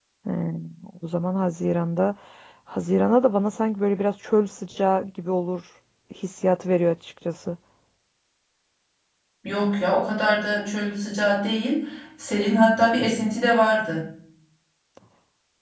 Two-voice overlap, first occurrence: none

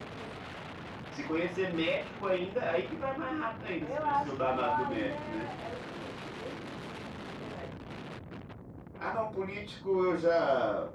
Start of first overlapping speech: 3.8 s

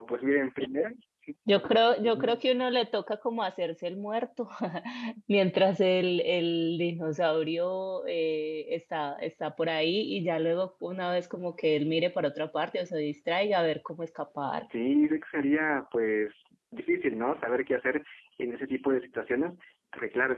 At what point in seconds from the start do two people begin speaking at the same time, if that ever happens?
none

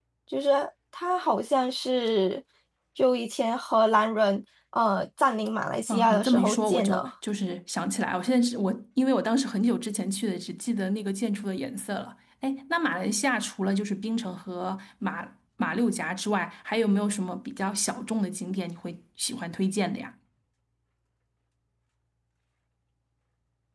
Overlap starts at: 5.9 s

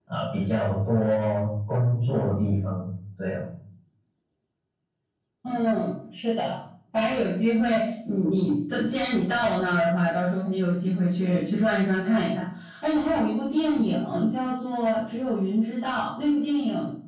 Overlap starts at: none

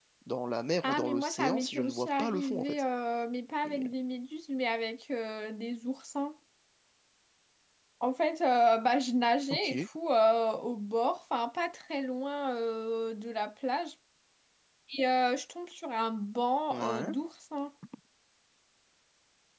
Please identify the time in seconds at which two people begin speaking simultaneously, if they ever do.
0.8 s

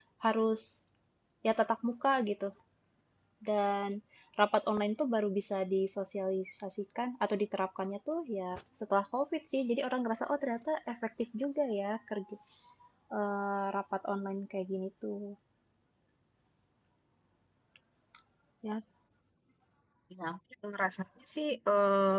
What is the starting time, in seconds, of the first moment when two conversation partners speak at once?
none

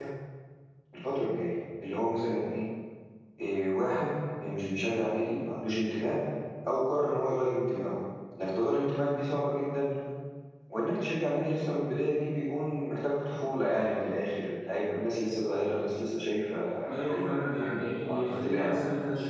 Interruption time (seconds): 16.9 s

